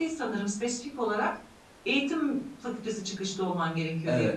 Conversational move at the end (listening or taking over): taking over